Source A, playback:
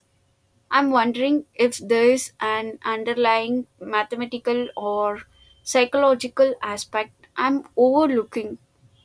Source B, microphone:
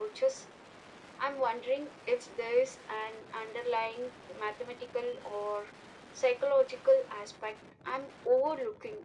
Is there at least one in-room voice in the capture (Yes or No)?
No